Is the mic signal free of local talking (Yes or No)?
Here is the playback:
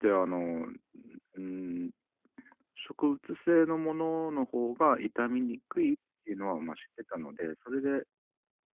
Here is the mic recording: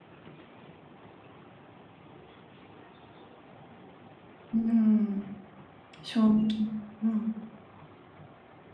No